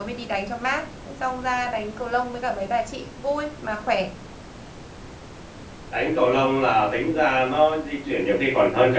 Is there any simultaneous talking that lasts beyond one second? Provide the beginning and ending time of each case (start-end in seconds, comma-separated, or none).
none